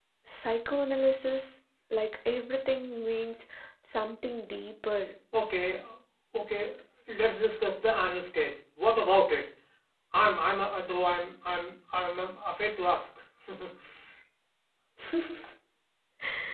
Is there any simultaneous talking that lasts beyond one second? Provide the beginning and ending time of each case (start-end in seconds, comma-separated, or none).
none